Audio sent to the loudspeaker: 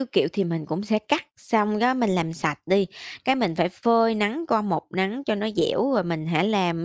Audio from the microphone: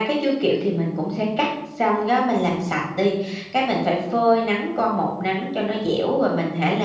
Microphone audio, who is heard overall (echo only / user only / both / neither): echo only